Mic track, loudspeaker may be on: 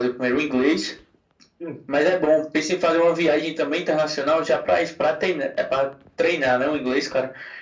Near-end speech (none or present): none